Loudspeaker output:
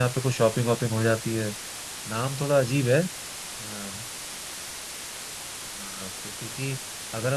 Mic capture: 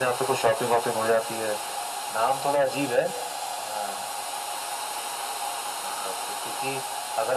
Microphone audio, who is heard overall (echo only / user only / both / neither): echo only